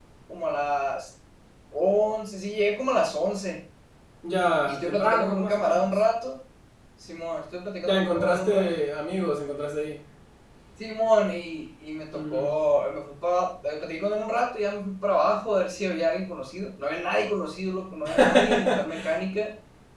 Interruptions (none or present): present